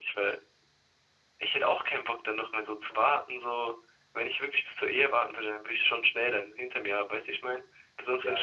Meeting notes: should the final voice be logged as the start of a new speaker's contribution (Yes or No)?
Yes